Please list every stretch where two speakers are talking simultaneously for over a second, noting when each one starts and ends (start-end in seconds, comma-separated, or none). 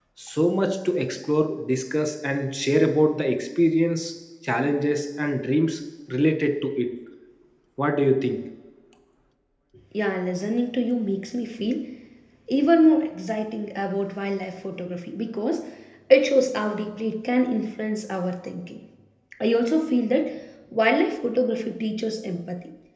none